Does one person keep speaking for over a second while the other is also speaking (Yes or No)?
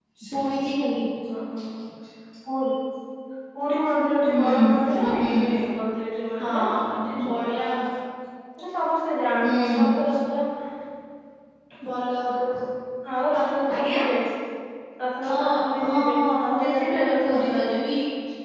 Yes